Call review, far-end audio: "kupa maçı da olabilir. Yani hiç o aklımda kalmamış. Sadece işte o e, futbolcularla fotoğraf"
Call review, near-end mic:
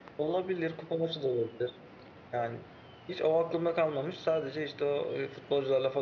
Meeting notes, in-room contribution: none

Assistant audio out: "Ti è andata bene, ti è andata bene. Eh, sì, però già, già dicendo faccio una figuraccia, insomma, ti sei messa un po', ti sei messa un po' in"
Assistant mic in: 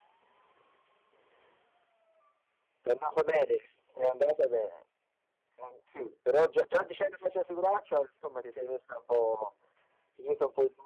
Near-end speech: none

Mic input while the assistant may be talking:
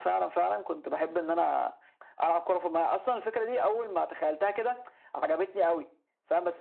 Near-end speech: none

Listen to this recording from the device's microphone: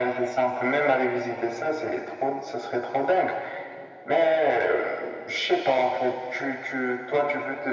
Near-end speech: none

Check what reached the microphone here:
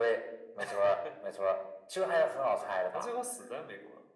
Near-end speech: none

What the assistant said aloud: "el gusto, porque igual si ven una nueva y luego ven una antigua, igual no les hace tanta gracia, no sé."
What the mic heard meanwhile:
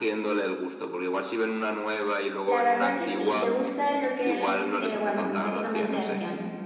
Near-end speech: present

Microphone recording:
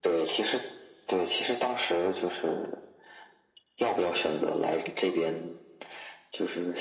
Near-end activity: none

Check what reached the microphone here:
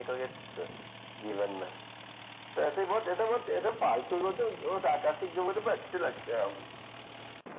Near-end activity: none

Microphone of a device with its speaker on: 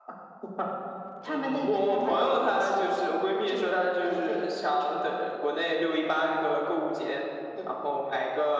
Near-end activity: none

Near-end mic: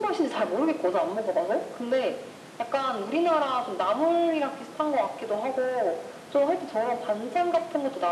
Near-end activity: none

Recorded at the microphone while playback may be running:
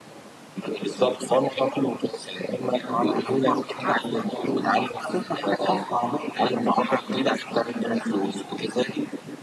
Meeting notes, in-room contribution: none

